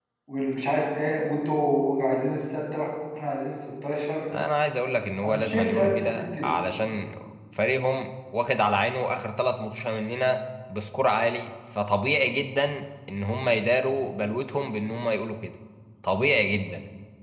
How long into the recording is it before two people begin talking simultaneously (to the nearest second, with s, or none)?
5 s